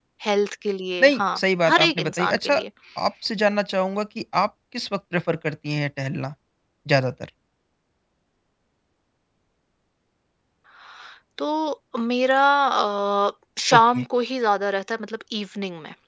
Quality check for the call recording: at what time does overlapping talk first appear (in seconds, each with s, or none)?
1.0 s